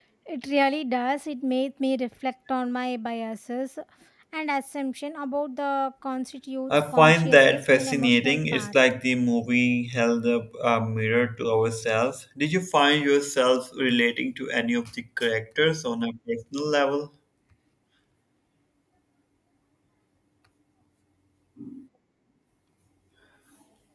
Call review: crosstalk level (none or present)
present